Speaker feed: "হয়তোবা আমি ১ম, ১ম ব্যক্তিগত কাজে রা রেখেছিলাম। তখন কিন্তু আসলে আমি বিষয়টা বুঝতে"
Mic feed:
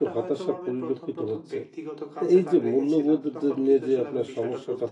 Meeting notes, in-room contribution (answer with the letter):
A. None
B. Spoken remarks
B